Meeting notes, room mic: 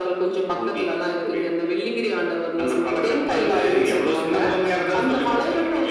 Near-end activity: none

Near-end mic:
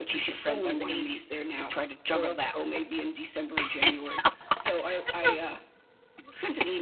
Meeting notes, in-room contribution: present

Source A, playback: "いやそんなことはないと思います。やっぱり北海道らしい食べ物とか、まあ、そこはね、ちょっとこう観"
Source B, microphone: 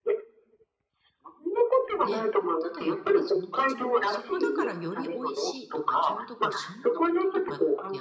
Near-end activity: present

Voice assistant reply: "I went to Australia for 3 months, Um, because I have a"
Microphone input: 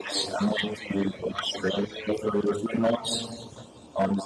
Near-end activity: none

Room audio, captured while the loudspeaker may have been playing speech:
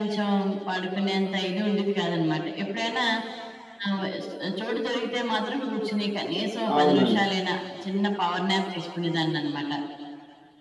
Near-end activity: present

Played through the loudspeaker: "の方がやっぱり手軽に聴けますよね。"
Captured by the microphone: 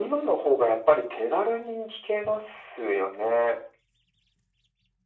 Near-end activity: none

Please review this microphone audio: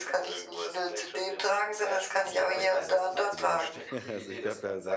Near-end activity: present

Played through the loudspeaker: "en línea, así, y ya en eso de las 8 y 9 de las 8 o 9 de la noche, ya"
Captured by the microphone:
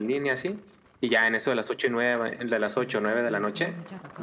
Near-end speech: present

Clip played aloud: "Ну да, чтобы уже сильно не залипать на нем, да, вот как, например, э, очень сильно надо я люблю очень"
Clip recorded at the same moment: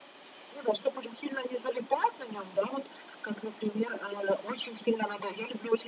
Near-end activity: none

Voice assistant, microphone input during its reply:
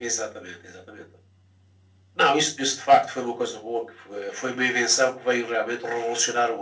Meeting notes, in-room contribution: none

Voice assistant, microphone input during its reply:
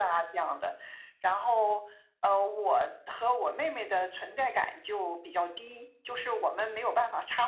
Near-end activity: none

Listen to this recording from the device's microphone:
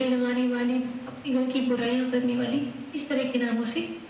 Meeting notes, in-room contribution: none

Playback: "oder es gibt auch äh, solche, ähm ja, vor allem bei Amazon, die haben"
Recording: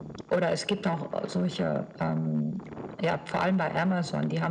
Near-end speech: none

